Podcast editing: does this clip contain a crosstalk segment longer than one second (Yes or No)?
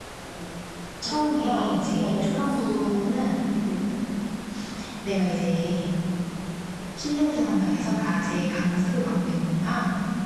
Yes